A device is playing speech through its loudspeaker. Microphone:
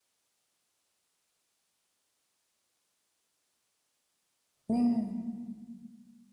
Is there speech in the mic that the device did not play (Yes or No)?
Yes